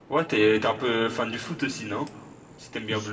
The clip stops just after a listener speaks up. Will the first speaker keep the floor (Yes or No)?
No